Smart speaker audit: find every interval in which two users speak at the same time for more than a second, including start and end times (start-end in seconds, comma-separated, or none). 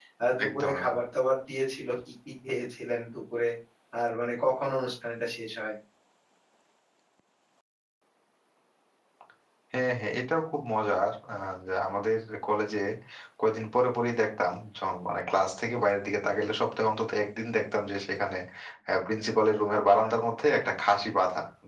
none